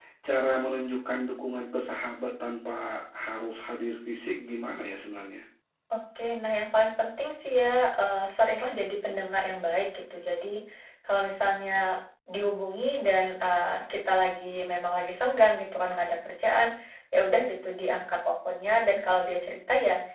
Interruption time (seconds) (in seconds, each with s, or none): none